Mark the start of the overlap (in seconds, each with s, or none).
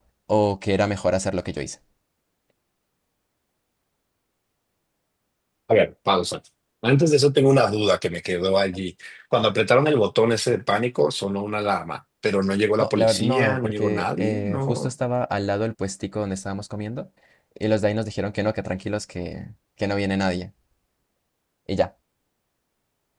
12.8 s